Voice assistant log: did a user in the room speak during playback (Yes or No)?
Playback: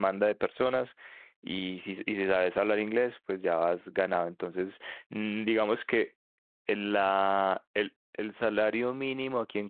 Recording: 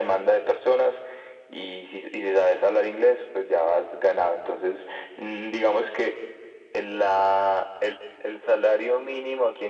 No